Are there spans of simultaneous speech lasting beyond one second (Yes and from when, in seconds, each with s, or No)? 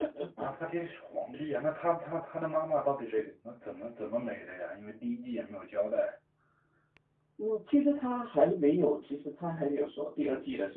No